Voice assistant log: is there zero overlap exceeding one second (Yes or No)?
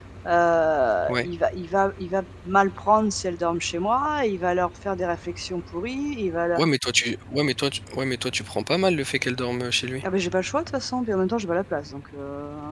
Yes